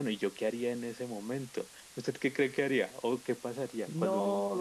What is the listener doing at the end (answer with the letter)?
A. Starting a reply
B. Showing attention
A